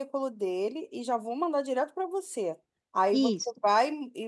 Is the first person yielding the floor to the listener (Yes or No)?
No